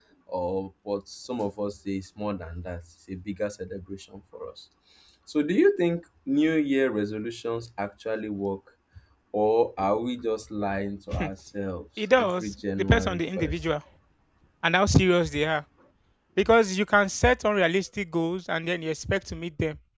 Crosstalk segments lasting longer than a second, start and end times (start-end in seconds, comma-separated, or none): 12.2-13.5